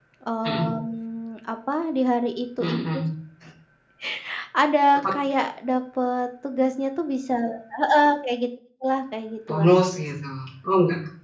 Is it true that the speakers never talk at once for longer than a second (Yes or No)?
Yes